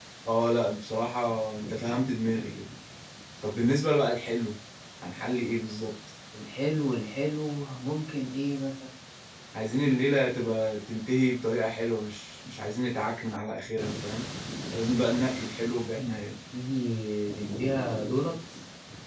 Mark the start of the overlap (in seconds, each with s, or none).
none